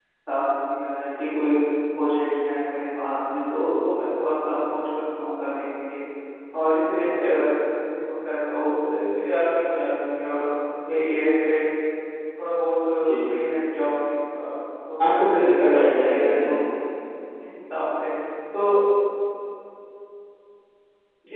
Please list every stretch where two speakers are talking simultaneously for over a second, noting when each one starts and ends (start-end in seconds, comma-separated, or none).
15.0-16.6